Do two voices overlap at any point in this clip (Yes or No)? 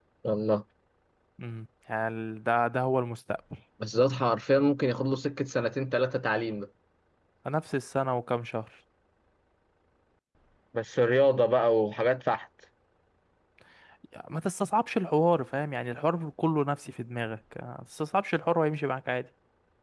No